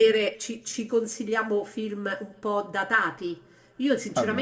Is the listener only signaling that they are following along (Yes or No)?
Yes